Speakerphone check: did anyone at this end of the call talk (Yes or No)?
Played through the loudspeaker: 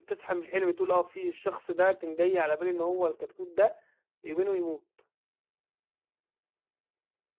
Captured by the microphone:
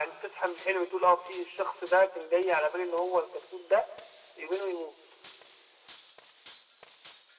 No